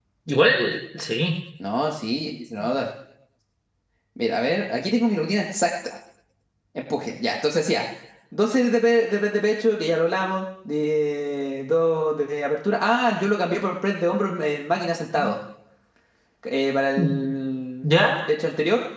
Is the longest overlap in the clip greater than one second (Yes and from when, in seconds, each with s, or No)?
No